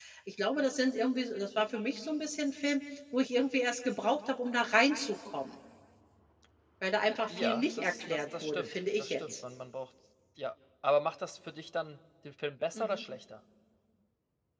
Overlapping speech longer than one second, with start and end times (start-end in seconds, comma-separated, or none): 7.3-9.3